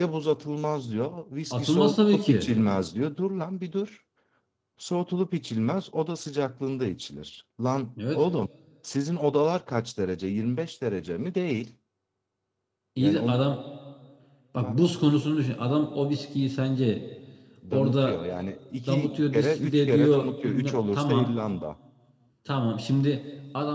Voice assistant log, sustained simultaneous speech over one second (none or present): present